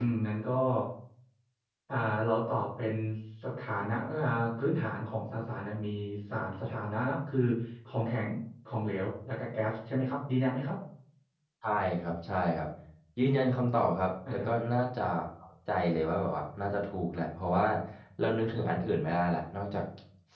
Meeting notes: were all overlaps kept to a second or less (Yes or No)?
Yes